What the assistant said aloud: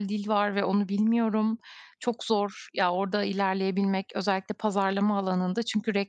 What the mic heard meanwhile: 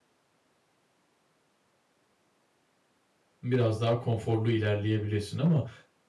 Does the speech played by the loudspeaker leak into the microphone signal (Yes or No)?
No